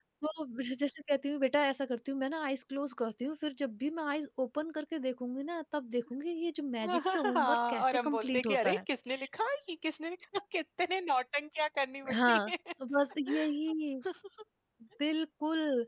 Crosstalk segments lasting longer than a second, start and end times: 6.9-8.8

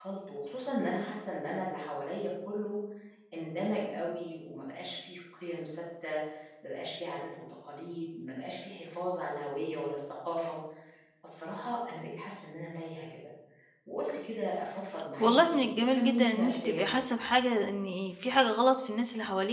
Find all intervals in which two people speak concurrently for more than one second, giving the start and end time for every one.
15.2-17.0

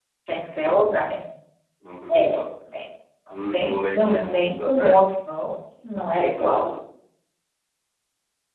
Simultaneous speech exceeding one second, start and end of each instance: 3.3-5.0

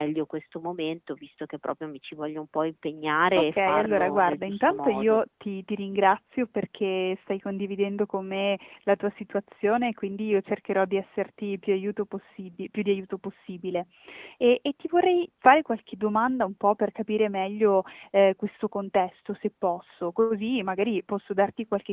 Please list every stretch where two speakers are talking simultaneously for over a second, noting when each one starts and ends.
3.4-5.2

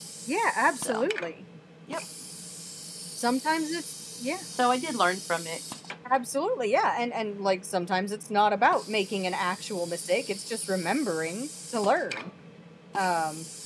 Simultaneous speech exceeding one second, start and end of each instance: none

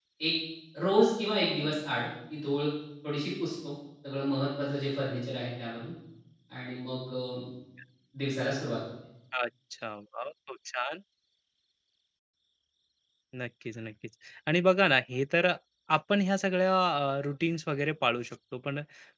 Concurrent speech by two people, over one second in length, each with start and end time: none

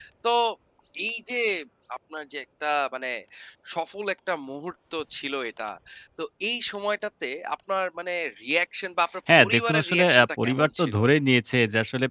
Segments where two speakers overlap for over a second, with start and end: 9.4-11.0

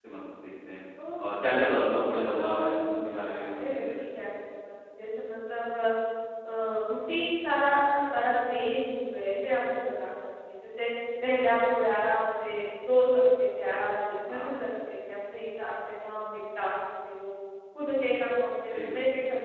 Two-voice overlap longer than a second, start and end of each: 1.2-4.0

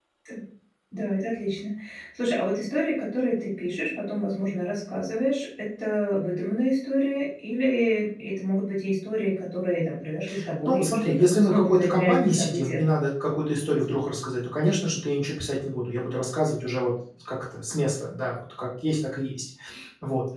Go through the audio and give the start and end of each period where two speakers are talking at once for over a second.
10.7-12.8

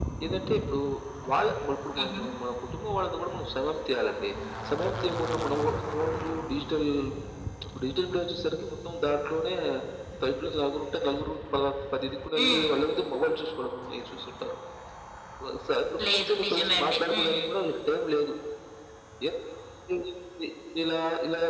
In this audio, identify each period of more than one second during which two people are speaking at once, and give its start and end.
16.1-17.4

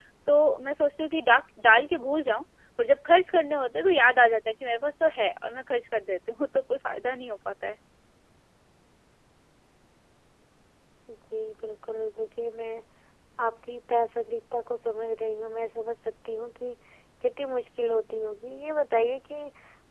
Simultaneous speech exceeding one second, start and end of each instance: none

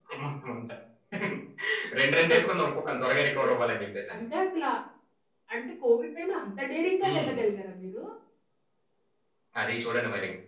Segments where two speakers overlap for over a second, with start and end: none

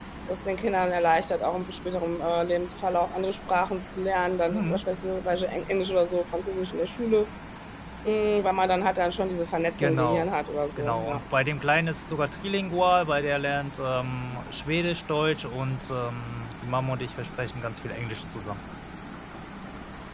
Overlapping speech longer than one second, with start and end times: none

